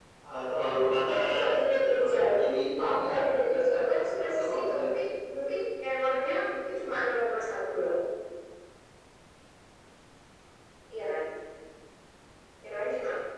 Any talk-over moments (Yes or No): Yes